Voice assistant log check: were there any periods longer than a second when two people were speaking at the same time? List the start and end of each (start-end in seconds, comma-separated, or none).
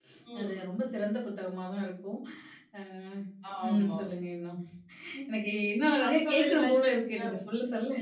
6.0-7.2